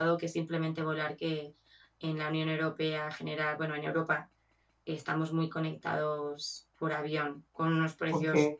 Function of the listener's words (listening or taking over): listening